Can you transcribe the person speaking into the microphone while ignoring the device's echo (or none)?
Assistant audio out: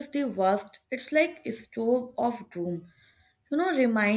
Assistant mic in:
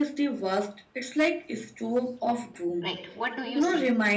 Right, what do you say?